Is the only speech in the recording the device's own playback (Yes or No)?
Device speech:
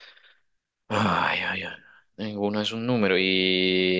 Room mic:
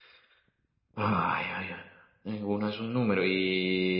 Yes